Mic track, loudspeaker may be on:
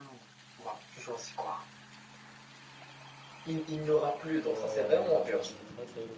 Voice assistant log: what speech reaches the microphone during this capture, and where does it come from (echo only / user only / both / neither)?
both